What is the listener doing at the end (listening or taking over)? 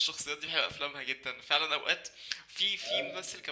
listening